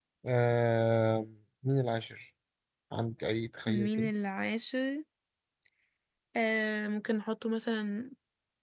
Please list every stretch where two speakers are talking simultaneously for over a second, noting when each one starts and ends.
none

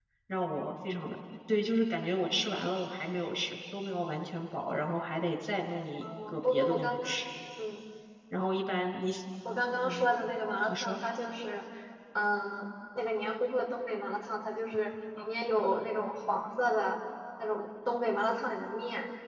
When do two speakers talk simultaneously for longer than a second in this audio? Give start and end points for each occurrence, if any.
6.0-7.2

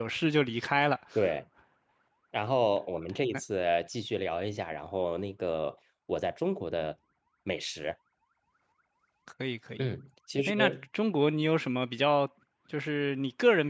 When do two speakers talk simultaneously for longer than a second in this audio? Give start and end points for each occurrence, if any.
none

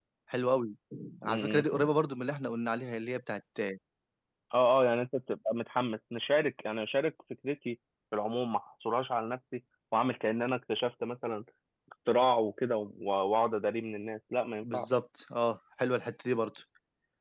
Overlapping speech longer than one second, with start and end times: none

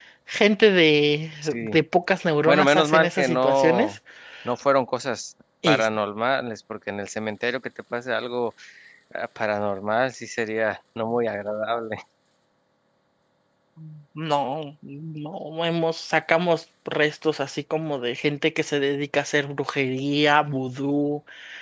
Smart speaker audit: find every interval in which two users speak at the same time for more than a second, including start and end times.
2.5-4.0

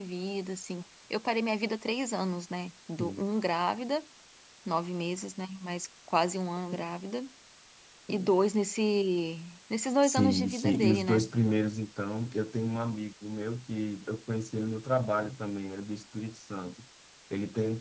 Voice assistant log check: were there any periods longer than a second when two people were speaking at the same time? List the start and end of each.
10.0-11.2

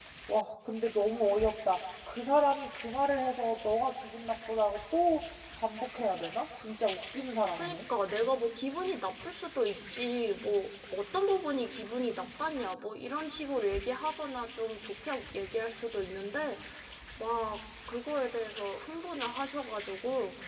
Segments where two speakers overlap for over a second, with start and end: none

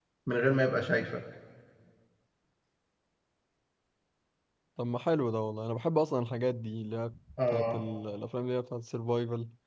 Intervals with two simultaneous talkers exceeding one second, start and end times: none

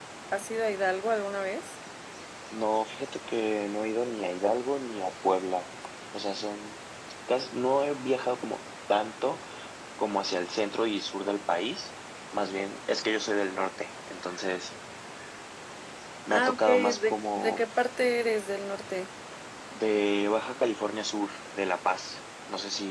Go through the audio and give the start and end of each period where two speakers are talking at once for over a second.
16.3-17.6

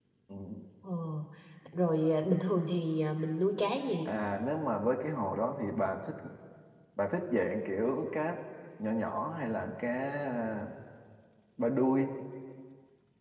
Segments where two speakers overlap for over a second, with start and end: none

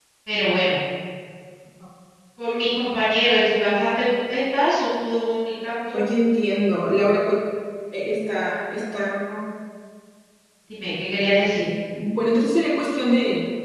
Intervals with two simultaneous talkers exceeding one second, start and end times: none

